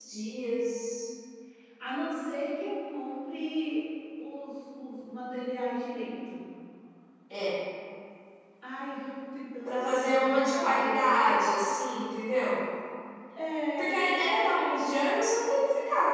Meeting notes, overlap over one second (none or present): present